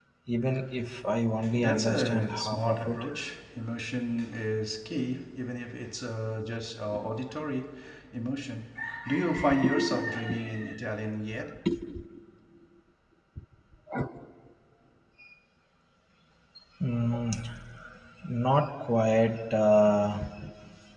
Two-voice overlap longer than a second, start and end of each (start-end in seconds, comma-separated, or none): 1.5-3.0